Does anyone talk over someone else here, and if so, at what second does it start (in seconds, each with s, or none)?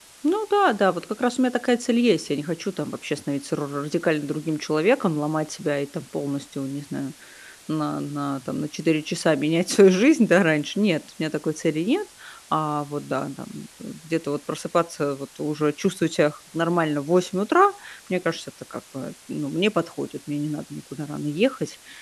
none